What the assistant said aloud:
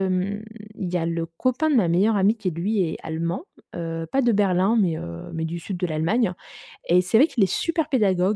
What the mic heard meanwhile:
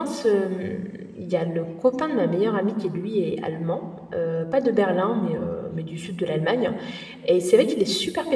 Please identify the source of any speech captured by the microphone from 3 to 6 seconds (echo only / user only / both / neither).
echo only